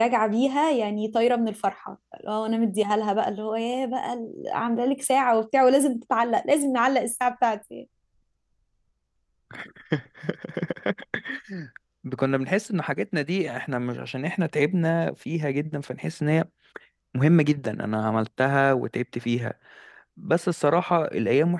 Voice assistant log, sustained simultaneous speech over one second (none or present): none